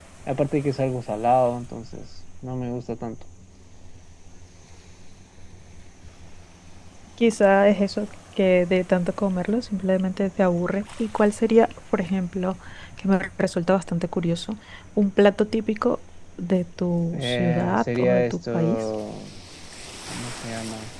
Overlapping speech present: Yes, from 17.1 s

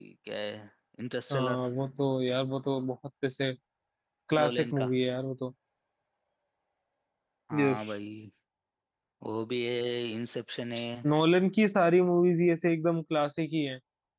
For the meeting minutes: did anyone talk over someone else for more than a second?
No

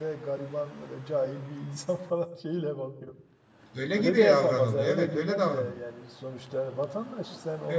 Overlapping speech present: Yes, from 3.9 s

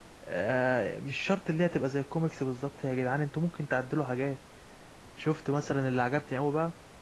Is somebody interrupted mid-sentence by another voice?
No

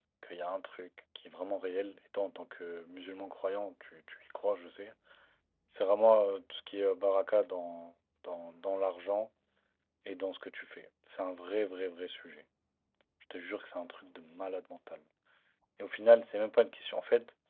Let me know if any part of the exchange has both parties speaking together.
No

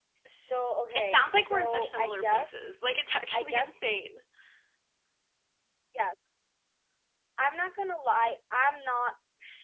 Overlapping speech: Yes, from 0.9 s

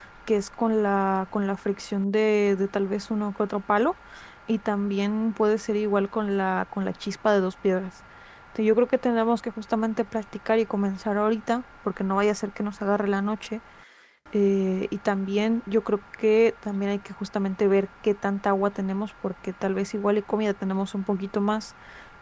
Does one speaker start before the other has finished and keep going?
No

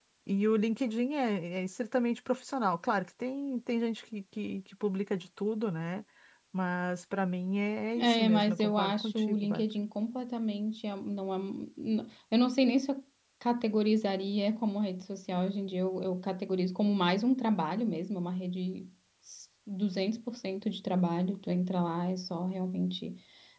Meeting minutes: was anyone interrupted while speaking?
Yes, from 8.0 s

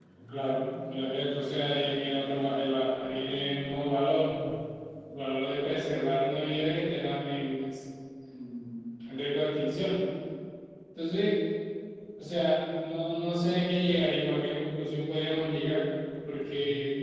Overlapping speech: No

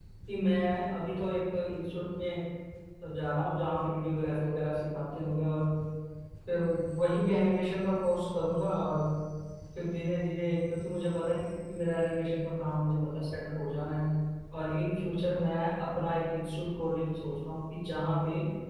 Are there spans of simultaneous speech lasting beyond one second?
No

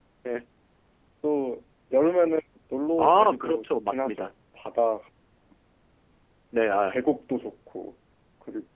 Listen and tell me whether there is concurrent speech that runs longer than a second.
Yes, from 3.0 s

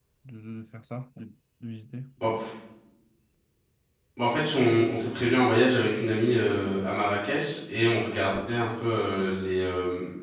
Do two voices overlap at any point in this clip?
No

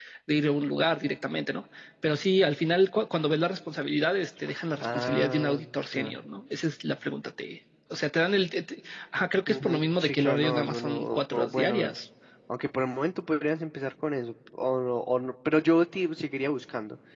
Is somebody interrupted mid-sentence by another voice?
Yes, from 4.8 s

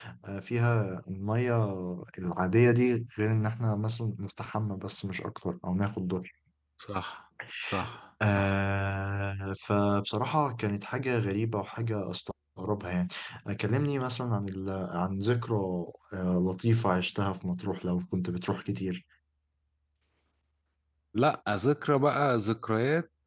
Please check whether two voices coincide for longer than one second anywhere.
No

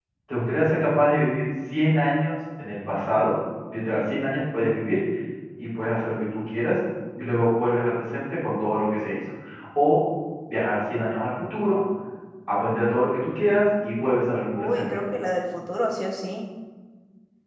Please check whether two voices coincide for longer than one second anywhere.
No

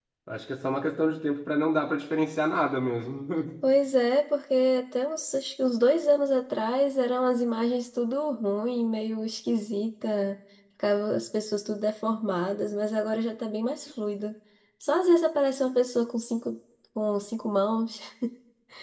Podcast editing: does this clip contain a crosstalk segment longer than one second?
No

